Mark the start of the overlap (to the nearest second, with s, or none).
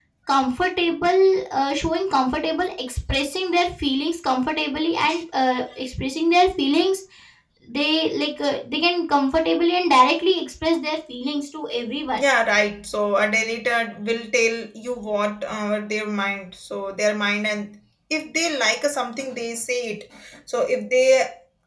none